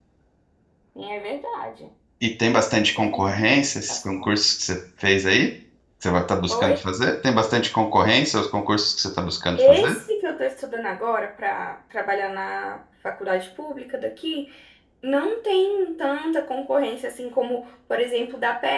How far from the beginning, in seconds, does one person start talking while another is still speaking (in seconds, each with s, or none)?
2.8 s